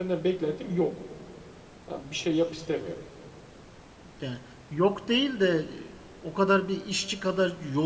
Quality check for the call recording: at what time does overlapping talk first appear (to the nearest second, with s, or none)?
none